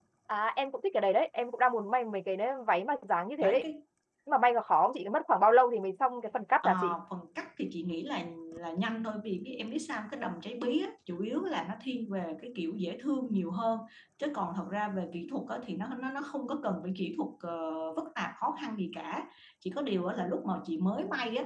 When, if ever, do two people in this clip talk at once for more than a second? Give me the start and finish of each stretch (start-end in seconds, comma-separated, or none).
none